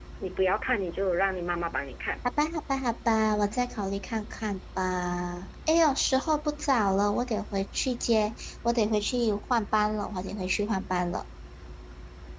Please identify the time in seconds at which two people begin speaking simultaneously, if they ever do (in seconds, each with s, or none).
none